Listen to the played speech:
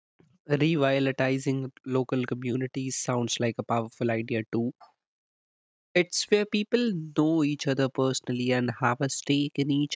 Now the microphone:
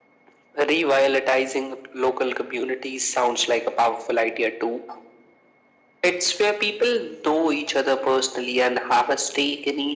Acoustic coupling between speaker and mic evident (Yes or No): Yes